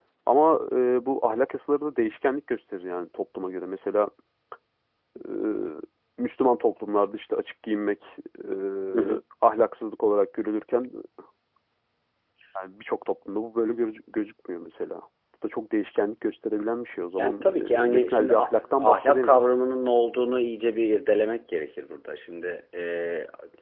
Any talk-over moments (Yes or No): Yes